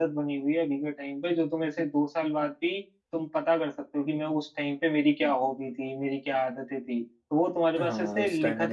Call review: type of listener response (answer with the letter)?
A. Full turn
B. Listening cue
A